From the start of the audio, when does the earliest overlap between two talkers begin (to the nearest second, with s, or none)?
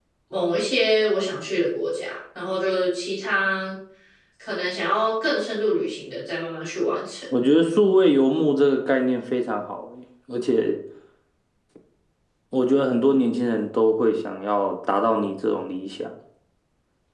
none